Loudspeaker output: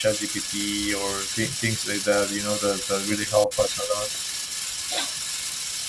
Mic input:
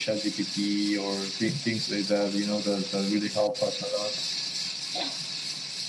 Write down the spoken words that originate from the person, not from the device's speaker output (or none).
none